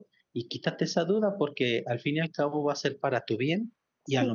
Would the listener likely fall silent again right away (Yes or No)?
Yes